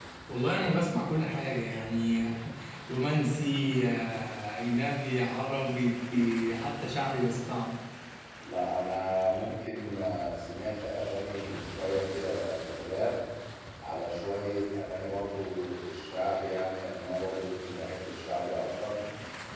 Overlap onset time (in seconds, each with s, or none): none